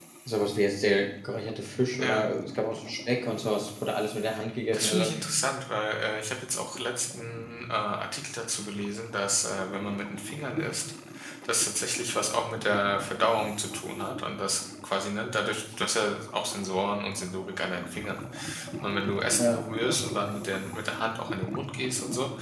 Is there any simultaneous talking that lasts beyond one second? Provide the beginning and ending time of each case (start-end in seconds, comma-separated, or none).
none